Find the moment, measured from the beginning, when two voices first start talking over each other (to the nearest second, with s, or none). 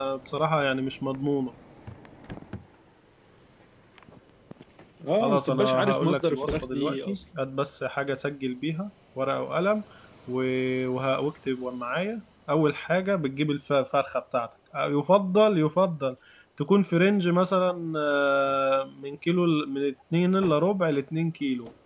5 s